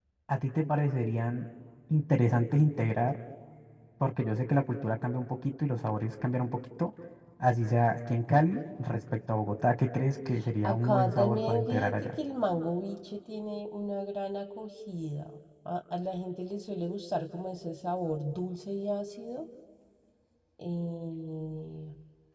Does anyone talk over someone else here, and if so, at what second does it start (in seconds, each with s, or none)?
10.6 s